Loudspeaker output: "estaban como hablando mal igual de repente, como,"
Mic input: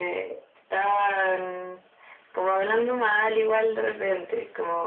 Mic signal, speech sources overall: echo only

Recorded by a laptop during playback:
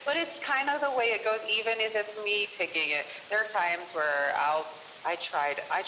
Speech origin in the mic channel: echo only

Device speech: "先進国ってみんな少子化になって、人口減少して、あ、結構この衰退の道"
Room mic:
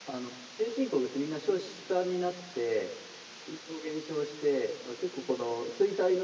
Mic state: echo only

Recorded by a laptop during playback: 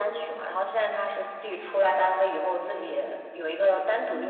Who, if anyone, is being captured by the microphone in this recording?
echo only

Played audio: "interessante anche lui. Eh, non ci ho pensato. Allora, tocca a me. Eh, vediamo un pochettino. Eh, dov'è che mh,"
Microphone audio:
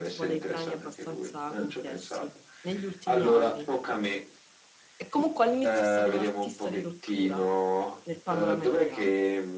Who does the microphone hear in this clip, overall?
both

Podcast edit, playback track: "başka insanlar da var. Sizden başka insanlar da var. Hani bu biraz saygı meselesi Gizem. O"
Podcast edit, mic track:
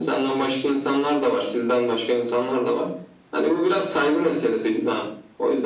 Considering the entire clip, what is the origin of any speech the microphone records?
echo only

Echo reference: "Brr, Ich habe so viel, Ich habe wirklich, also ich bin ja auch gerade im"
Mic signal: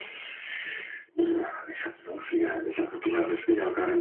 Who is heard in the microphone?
both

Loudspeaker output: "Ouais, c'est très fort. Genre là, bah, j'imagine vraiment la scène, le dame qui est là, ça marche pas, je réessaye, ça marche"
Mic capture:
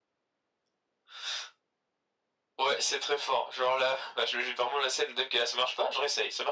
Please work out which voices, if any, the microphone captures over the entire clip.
echo only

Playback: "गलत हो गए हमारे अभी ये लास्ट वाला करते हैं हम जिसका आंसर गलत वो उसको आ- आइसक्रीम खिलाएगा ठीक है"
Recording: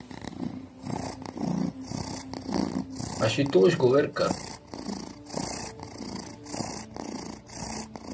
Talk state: user only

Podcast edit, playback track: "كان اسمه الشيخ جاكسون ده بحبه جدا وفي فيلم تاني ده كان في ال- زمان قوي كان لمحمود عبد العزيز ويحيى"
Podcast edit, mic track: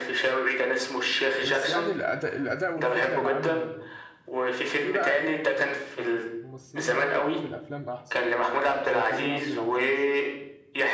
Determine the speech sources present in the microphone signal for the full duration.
both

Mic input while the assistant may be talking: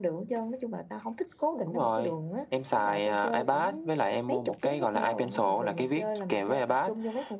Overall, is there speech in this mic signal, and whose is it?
echo only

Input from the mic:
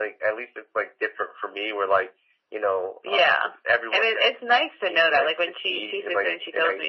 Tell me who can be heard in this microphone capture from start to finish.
echo only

